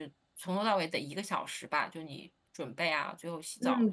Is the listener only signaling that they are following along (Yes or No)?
No